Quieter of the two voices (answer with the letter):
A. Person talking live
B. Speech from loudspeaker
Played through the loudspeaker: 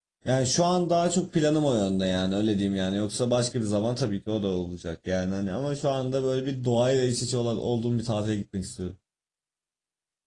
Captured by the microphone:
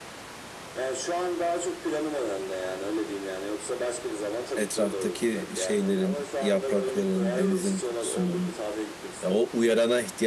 B